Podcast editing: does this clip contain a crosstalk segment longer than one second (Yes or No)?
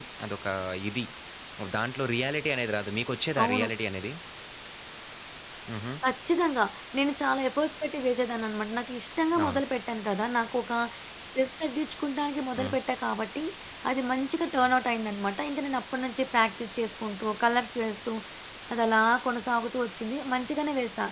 No